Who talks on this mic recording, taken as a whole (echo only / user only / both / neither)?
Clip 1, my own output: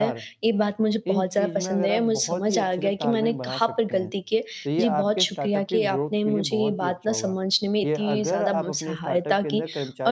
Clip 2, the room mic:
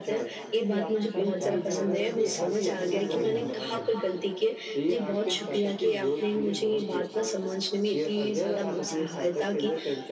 both